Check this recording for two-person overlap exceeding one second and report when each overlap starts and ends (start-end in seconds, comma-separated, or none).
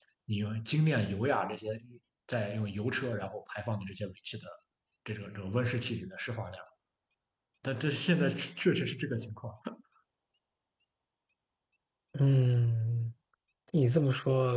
none